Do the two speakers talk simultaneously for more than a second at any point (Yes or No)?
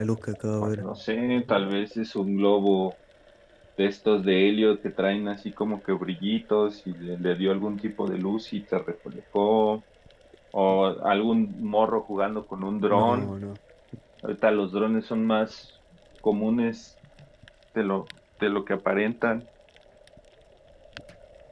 No